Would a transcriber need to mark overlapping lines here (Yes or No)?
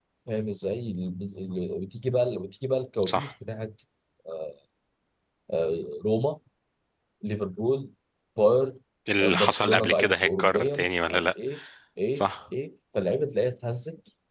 Yes